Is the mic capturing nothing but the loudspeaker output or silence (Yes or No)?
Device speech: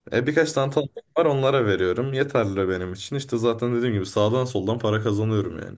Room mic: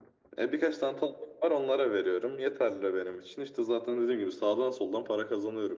Yes